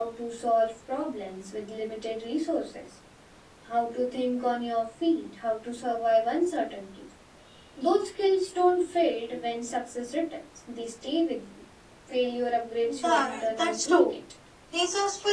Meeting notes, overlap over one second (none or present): present